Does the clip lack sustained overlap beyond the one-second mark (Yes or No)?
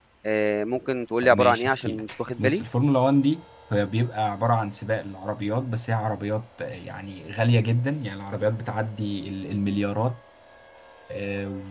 No